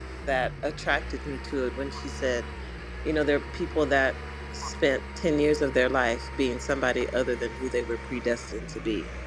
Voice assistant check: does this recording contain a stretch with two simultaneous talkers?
No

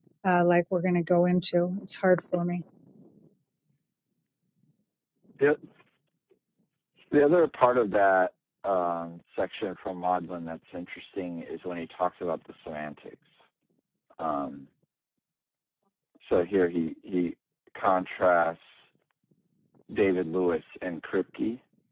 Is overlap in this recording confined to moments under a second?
Yes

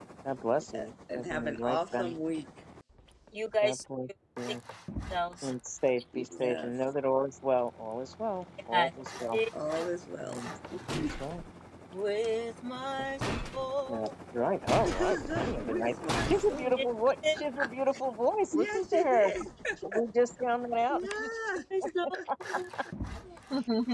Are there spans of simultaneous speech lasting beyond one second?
Yes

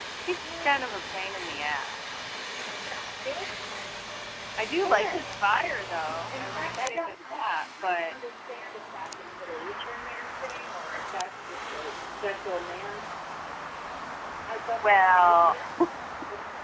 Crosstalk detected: Yes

